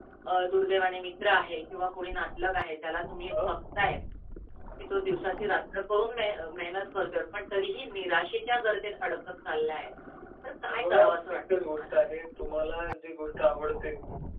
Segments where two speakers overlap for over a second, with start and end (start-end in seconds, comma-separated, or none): 10.7-12.0